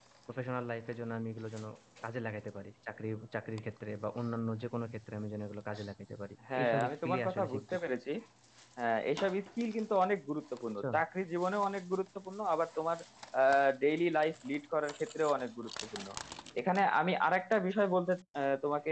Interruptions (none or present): present